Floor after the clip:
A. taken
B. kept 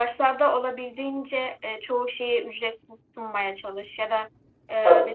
B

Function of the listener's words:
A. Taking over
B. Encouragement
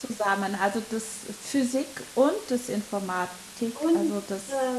A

